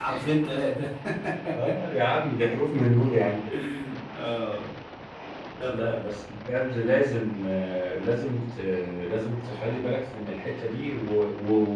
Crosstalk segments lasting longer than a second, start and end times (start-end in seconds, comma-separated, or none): none